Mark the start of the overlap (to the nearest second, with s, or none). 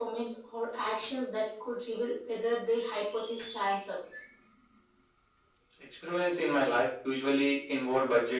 none